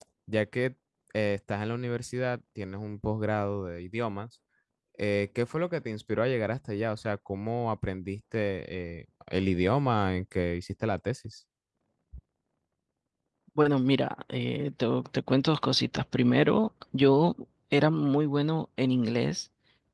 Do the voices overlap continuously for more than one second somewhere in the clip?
No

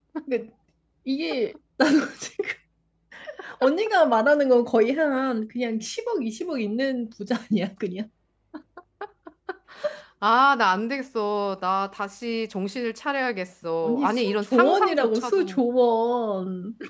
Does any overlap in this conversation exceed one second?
Yes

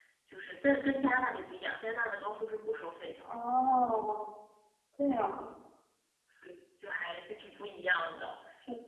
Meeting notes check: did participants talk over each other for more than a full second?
No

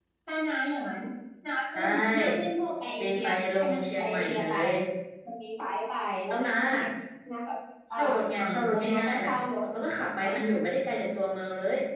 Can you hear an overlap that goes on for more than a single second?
Yes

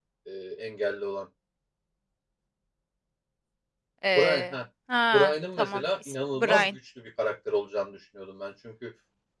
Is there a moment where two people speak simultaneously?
Yes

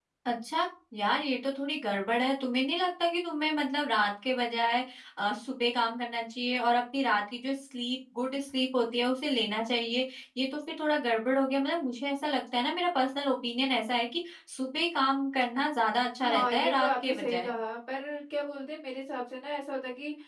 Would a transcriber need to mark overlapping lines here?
Yes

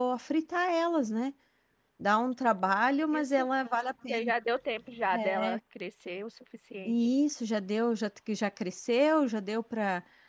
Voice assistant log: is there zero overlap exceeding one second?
Yes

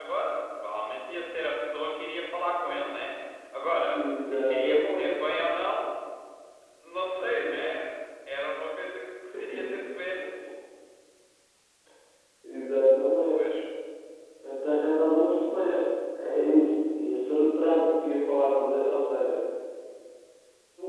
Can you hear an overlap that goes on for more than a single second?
Yes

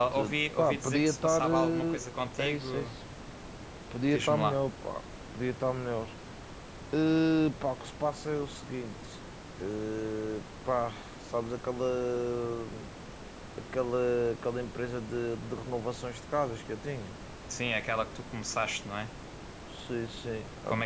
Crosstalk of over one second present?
Yes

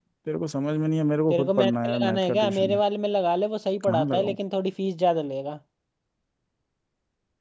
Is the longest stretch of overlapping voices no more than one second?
No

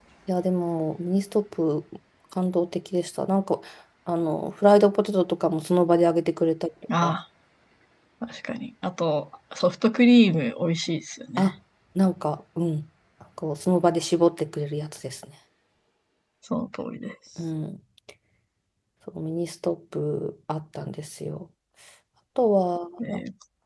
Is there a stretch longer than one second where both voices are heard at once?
No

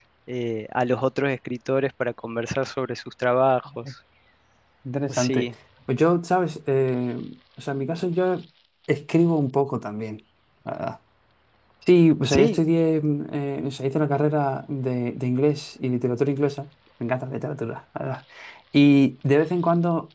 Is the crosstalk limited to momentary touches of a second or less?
Yes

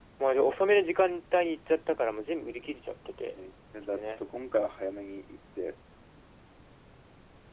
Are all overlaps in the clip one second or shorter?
Yes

